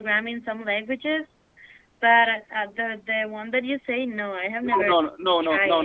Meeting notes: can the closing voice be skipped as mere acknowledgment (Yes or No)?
No